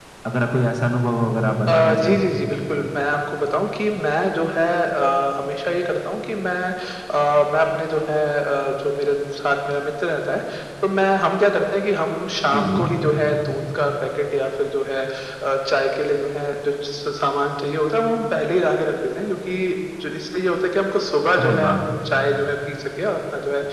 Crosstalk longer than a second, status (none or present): none